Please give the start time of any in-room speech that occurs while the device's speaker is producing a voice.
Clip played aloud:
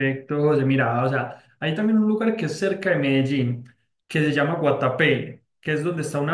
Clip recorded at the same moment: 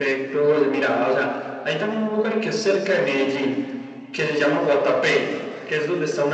none

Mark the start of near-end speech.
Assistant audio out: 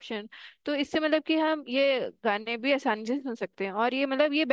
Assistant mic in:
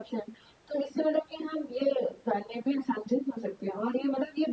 none

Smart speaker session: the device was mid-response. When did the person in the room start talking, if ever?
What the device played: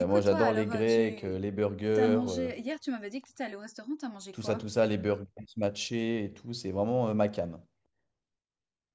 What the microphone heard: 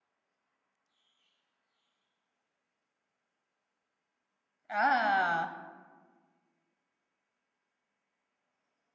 4.7 s

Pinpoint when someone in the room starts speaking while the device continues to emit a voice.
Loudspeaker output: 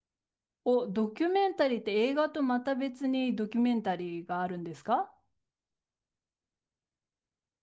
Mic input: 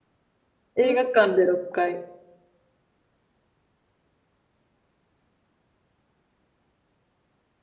0.8 s

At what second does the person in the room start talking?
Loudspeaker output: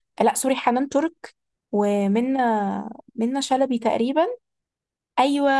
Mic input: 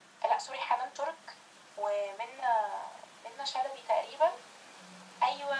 none

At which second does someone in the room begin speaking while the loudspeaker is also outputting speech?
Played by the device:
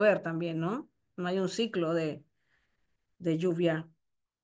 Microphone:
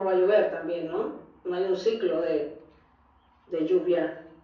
none

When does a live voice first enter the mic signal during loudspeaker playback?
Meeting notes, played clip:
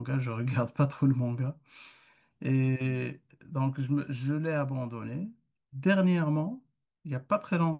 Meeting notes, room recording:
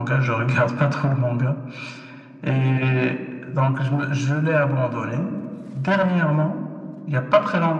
none

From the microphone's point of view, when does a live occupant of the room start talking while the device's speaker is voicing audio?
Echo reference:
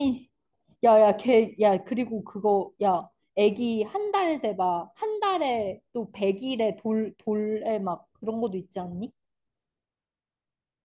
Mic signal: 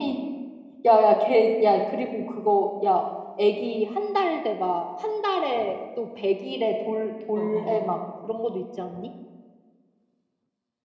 7.3 s

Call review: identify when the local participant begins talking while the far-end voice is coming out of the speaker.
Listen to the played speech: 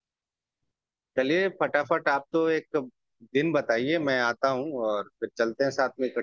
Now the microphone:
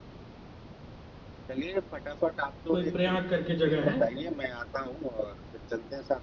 2.7 s

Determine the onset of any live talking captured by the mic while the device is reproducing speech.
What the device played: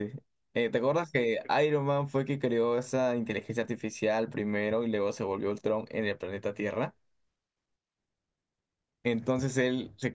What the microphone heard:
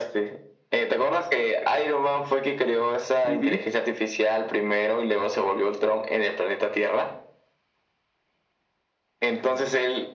3.2 s

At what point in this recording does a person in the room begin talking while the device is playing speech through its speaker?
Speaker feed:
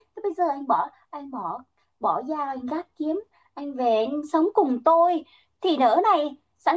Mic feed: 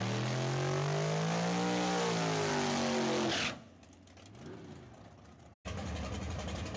none

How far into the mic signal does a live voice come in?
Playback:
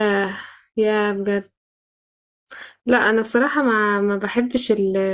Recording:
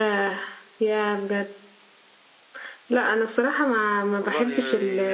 4.2 s

